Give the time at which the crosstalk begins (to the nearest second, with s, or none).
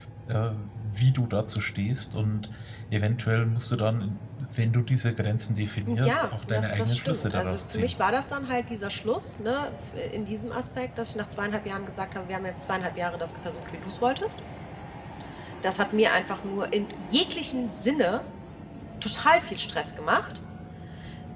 6 s